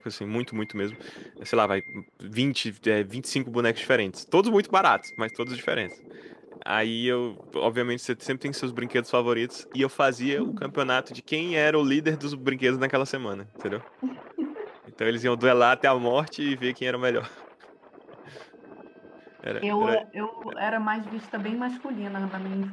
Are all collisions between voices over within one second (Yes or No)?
Yes